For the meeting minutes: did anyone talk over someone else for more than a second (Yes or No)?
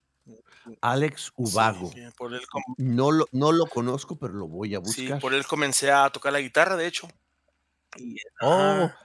No